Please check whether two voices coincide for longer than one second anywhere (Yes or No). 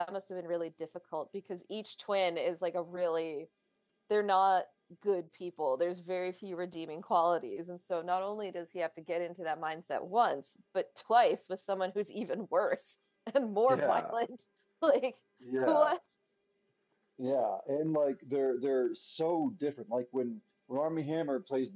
No